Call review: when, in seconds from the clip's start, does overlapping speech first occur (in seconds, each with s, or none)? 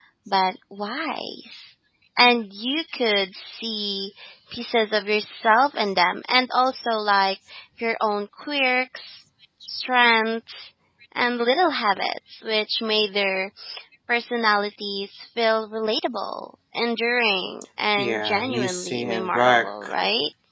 18.0 s